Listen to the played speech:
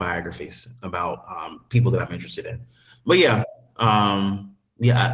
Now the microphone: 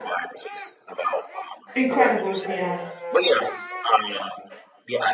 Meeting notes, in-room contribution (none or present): present